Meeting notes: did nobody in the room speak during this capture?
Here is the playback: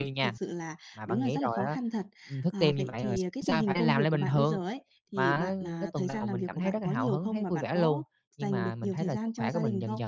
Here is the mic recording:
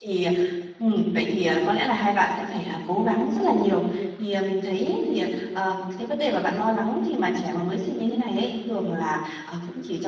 No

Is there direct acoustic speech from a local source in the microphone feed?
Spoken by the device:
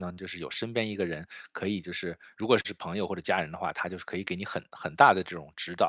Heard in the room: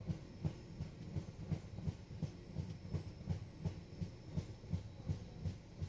No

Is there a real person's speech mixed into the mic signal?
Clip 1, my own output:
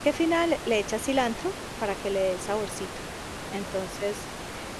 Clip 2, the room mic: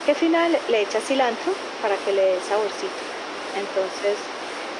No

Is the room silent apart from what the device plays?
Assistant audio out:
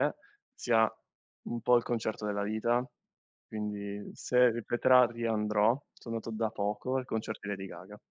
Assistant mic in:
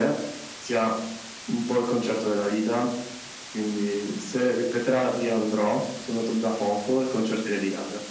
Yes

